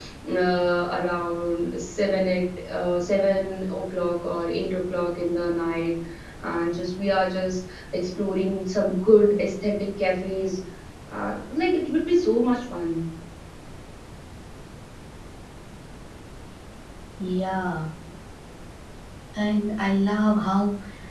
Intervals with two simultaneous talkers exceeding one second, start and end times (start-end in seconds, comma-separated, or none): none